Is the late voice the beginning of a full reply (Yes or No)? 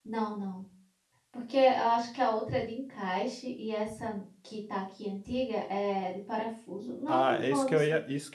Yes